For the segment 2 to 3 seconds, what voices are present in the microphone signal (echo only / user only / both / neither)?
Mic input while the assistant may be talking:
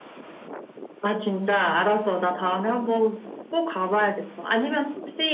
echo only